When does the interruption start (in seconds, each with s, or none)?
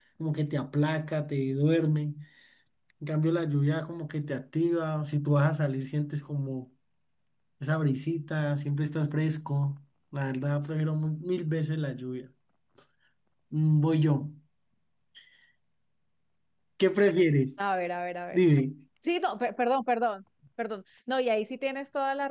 none